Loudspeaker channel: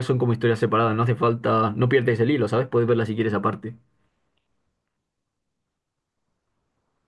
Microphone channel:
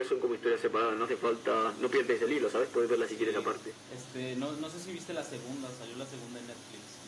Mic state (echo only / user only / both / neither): both